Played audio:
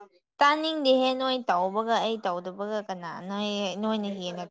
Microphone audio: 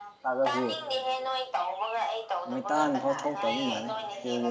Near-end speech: present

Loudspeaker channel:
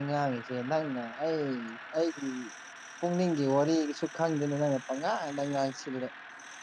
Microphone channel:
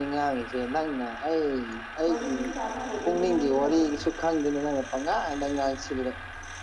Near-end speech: present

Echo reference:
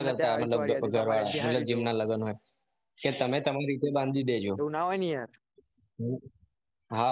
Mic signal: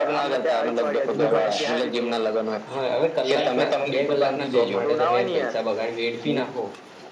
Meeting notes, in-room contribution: present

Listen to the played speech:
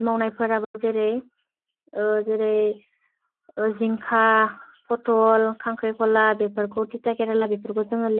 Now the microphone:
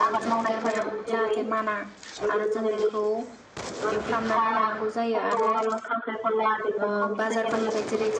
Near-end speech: present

